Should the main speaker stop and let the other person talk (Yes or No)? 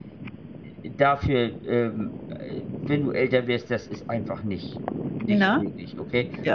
No